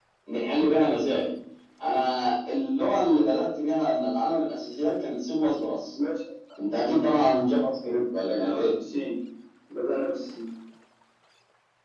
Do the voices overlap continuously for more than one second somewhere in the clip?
No

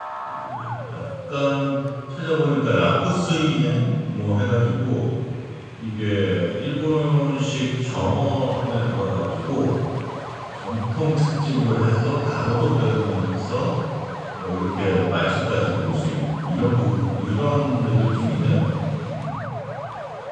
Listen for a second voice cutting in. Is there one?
No

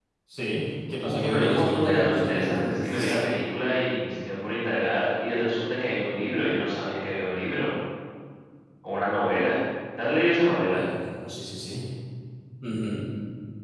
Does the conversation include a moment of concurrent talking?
Yes, from 1.0 s

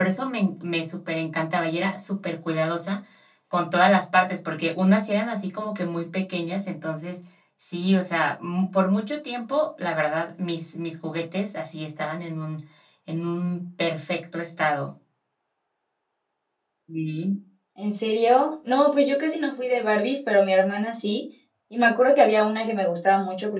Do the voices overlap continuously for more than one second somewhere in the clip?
No

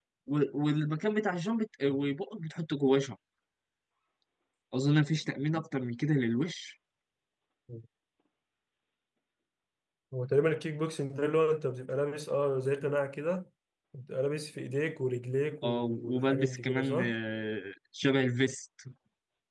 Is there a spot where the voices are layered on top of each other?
Yes, from 15.6 s

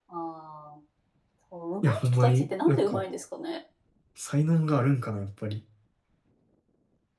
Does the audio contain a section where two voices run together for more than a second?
Yes, from 1.8 s

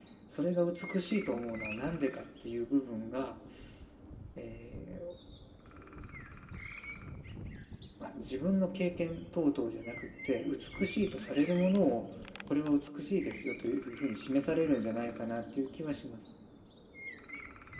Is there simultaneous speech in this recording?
No

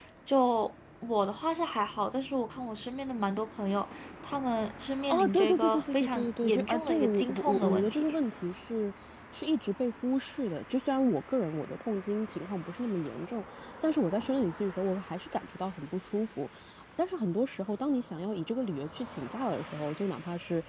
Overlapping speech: Yes, from 5.1 s

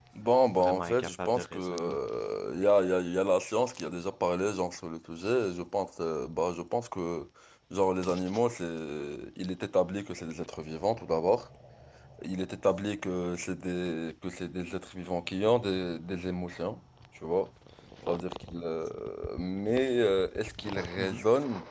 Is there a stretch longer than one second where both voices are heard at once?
Yes, from 0.5 s

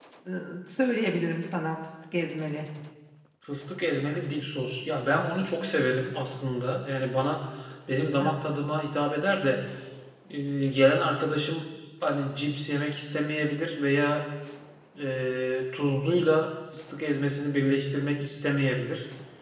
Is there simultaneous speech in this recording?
No

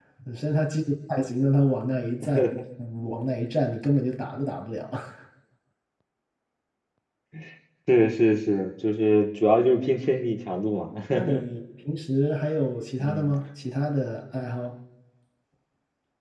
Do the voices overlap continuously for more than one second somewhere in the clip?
No

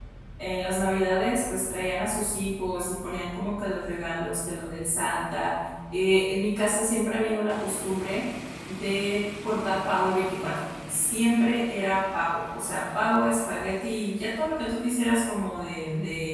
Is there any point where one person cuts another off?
No

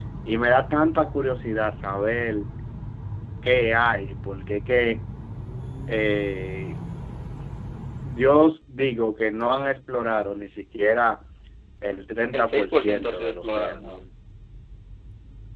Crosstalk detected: Yes, from 12.3 s

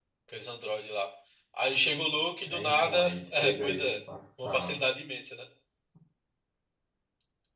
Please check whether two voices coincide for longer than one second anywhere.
Yes, from 2.4 s

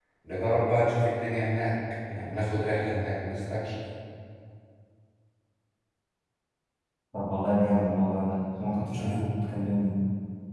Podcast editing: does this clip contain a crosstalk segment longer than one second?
No

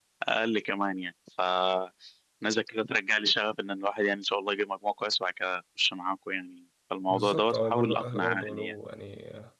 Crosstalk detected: Yes, from 7.1 s

